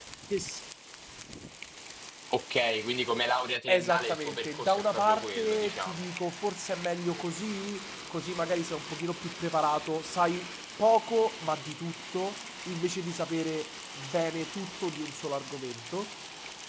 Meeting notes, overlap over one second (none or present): present